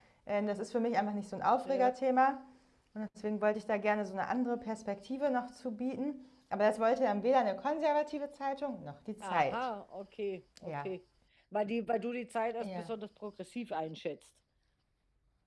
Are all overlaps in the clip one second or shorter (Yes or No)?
Yes